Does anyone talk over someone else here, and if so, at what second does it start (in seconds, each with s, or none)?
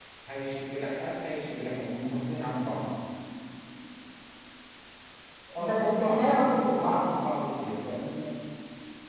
5.6 s